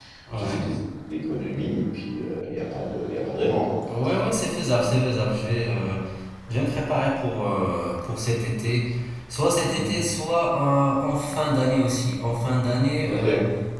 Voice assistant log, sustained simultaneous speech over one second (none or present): none